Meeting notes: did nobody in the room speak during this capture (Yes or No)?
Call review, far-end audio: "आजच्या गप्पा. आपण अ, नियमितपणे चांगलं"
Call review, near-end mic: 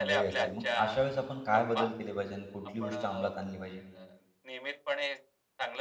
No